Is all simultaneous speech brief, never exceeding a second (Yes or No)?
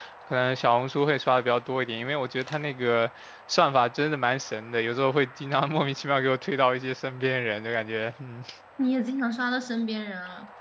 Yes